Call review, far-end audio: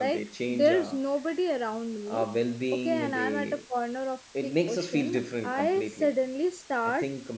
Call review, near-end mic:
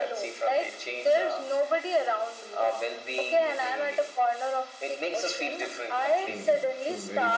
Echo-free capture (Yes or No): No